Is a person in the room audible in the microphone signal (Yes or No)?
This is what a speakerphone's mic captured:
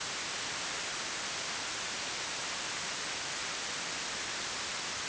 No